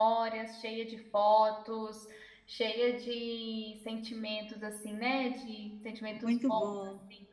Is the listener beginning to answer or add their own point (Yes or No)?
Yes